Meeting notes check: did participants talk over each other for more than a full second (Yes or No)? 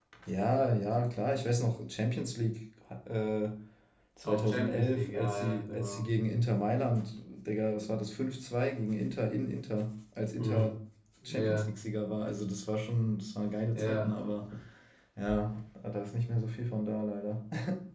Yes